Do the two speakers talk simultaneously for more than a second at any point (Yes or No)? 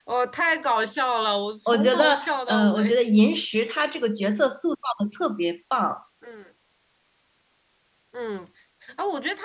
Yes